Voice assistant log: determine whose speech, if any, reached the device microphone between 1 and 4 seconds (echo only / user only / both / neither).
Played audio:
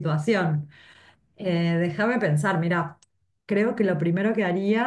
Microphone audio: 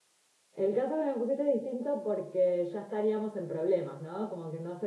user only